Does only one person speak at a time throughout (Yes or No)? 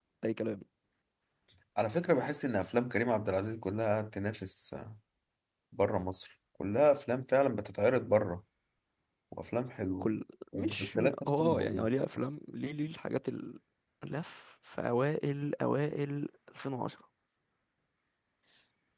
No